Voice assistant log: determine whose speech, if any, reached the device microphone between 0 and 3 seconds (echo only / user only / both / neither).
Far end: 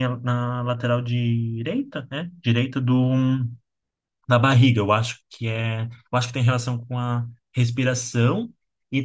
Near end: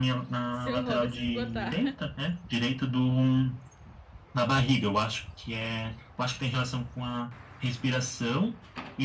both